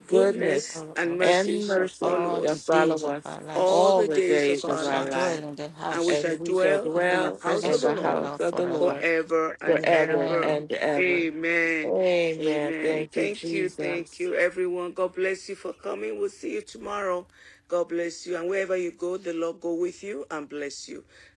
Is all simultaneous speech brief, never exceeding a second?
No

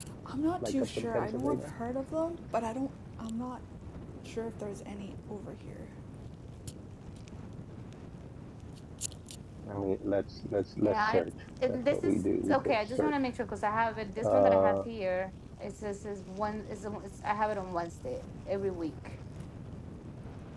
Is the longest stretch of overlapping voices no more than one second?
No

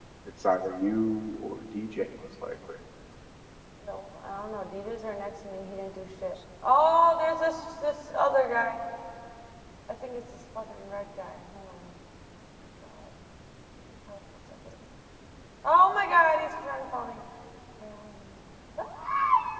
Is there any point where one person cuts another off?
No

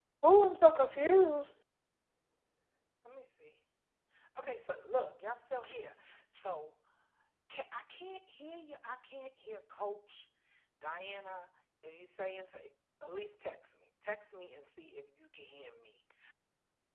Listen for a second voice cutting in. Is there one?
No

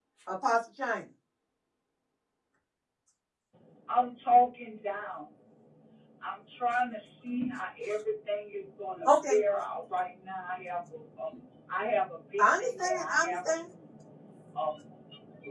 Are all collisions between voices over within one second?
No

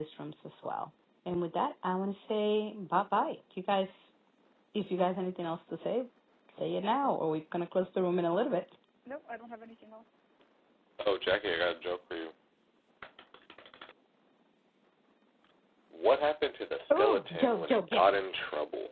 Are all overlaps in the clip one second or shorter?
No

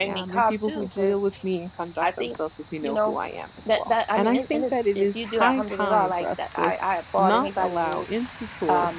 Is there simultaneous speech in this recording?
Yes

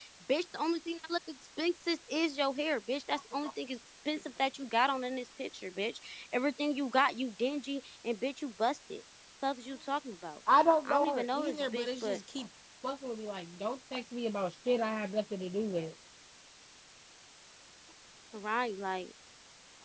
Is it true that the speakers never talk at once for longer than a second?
No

